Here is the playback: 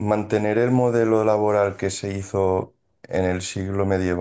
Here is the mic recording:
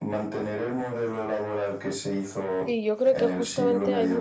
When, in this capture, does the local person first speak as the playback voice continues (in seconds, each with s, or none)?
2.6 s